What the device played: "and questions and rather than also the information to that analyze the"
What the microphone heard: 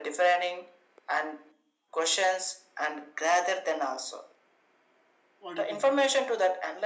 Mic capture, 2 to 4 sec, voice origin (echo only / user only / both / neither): echo only